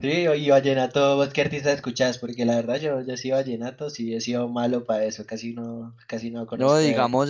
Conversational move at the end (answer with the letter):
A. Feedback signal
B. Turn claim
B